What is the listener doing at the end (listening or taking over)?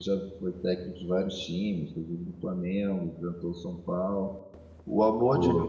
listening